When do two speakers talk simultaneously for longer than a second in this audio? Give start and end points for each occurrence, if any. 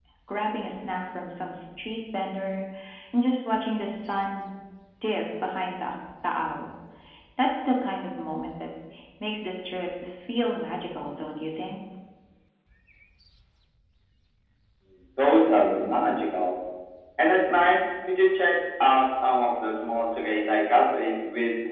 none

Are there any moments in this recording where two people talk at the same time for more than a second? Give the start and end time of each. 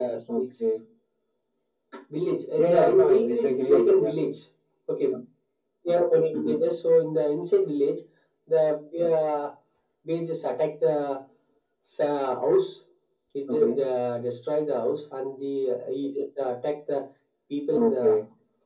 2.6-4.1

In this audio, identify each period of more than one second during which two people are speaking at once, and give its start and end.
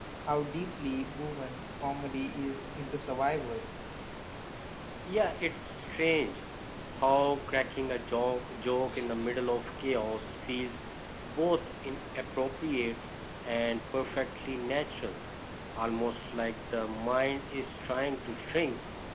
none

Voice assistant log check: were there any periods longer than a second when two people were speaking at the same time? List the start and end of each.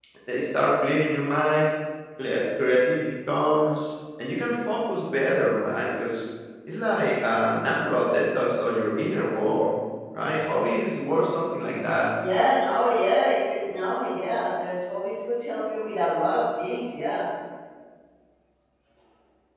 none

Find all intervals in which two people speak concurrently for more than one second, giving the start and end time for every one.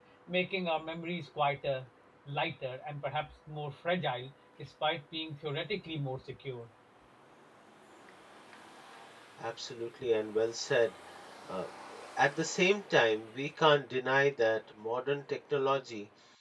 none

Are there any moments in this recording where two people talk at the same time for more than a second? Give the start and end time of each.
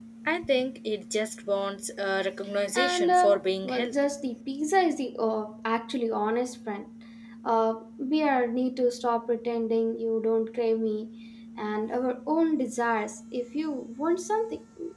2.7-4.0

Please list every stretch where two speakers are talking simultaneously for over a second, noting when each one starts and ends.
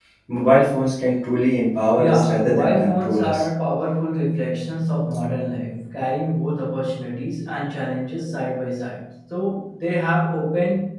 2.0-3.4

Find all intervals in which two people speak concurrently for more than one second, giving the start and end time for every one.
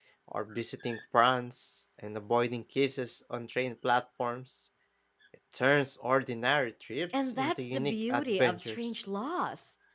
7.2-8.8

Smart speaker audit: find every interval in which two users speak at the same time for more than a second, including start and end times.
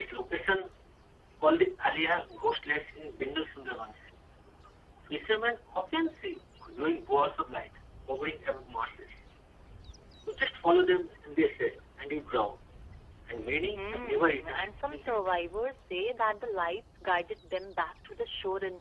13.7-15.2

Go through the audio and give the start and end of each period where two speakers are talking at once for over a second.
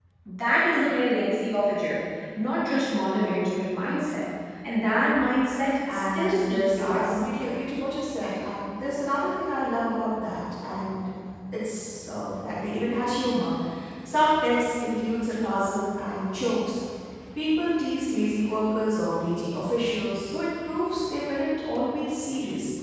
5.9-7.2

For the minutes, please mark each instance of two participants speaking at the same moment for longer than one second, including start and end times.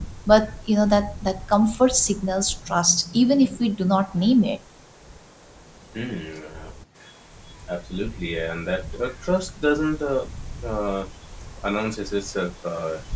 none

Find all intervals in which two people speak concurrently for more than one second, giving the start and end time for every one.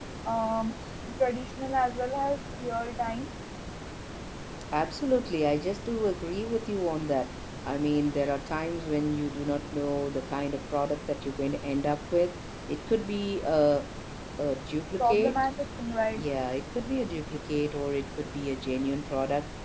none

